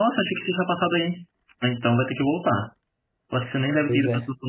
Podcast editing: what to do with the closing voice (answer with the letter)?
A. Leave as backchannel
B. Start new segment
A